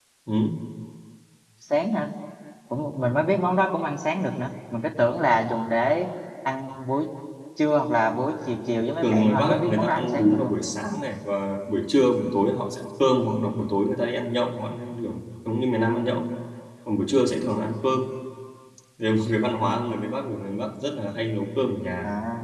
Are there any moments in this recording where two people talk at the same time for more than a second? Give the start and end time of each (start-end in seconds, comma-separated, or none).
9.0-10.5